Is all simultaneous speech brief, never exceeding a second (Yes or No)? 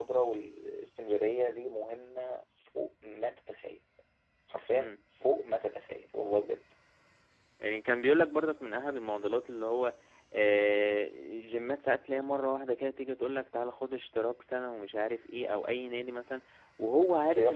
Yes